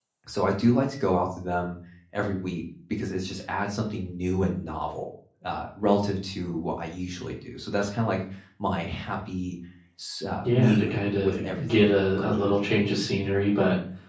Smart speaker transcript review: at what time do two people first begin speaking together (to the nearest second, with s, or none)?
10 s